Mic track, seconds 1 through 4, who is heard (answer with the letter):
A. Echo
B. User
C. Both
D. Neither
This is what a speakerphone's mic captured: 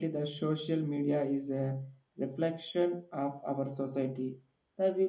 B